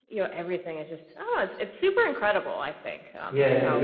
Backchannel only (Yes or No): No